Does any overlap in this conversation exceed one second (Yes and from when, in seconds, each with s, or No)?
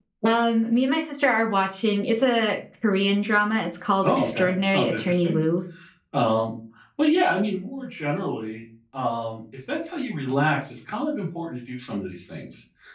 Yes, from 4.0 s